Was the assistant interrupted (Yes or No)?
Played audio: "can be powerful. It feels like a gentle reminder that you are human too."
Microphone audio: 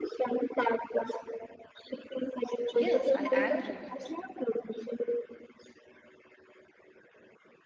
Yes